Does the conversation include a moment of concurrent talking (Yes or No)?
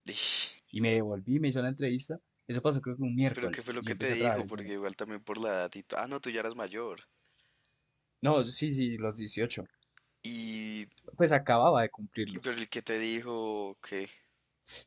Yes